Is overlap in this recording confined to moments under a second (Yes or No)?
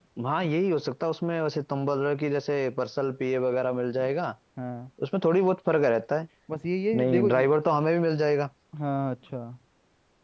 Yes